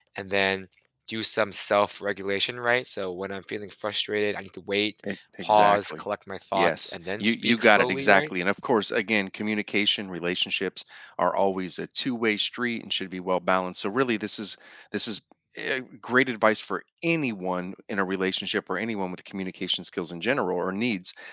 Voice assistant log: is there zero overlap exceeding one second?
No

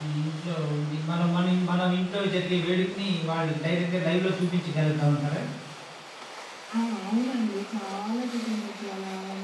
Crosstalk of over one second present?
No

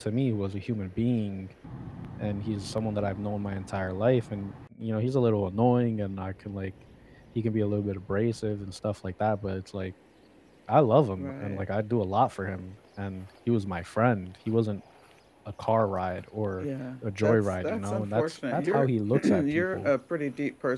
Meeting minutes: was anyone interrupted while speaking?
Yes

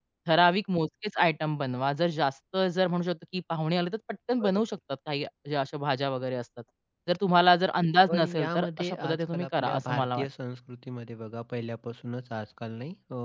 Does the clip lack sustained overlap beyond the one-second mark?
No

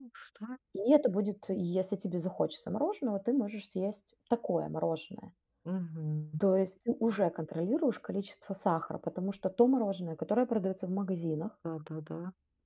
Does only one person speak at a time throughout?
Yes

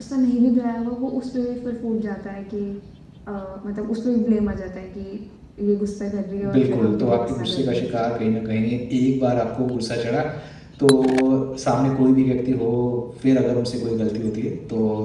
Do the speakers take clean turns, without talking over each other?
No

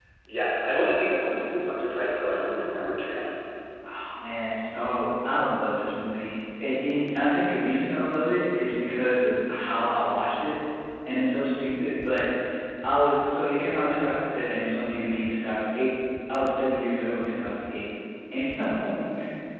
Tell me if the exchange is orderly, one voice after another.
Yes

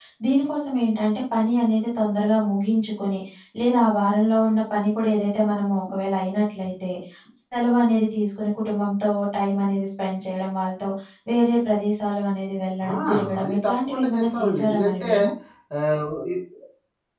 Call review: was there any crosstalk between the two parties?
Yes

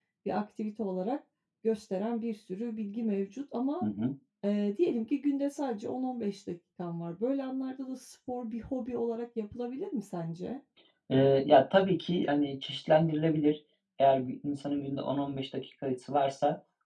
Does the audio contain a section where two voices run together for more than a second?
No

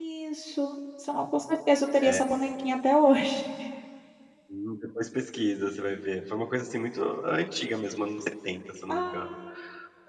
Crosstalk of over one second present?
No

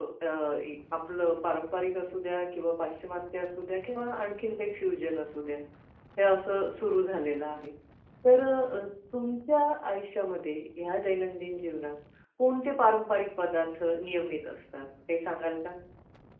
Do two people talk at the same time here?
No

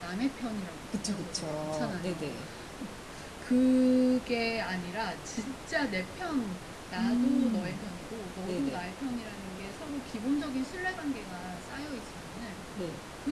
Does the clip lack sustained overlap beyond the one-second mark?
No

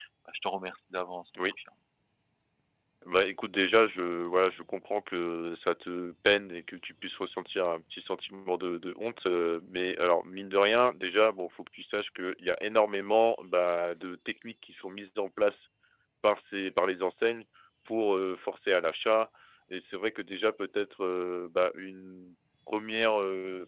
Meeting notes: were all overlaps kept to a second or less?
Yes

